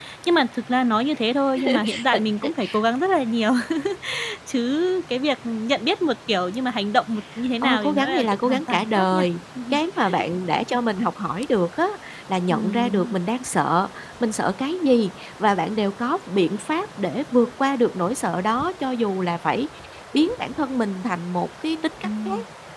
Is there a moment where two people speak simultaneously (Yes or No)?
Yes